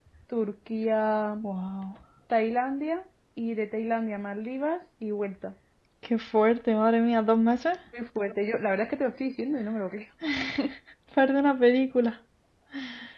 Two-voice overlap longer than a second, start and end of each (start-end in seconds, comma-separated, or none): none